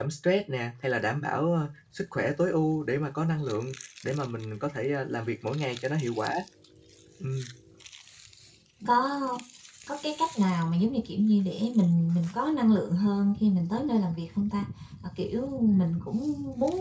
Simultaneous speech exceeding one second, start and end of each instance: none

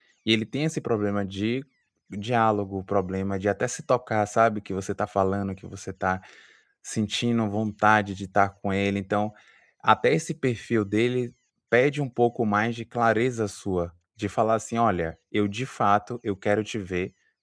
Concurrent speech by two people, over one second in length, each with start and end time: none

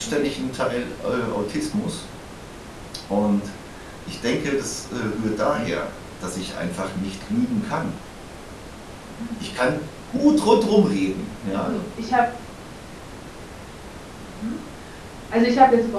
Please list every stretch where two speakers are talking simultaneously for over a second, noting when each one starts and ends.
none

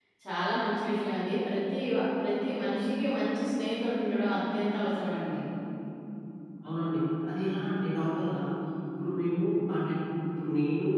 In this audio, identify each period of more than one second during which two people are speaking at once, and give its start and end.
none

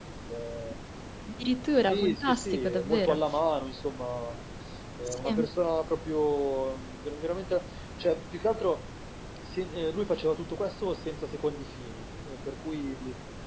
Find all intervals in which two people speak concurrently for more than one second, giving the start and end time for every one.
1.9-3.2

